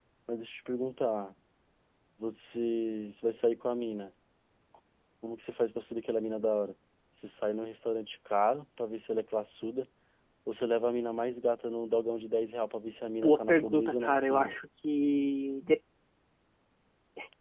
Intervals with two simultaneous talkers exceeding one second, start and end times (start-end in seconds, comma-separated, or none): 13.2-14.6